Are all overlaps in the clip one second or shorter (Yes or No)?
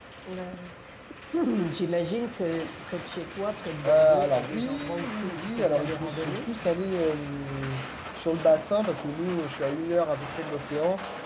No